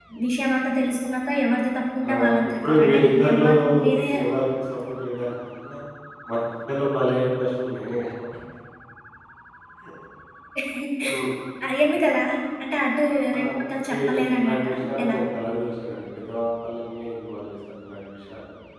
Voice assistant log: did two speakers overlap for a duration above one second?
Yes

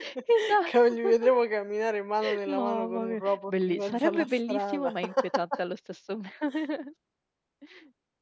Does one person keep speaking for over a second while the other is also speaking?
Yes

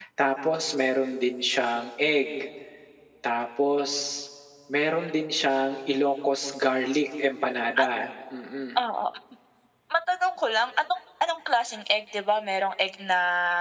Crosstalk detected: No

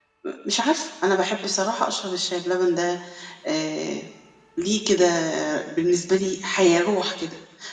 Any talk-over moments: No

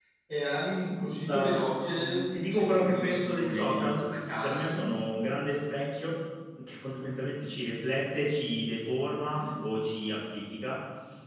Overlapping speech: Yes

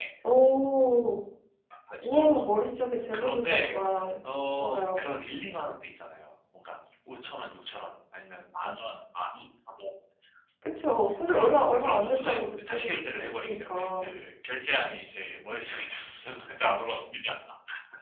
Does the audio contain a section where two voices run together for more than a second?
Yes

